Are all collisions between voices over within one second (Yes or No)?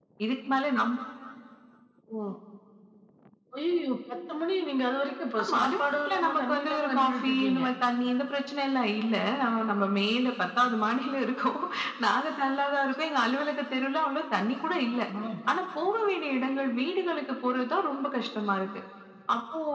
No